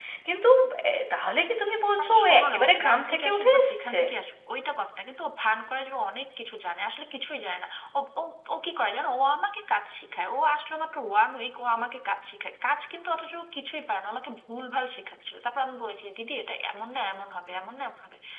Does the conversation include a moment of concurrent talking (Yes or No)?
Yes